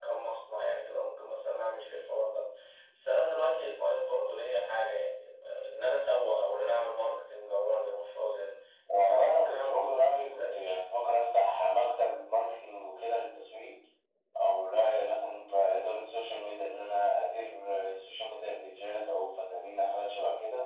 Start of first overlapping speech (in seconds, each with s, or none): 9.1 s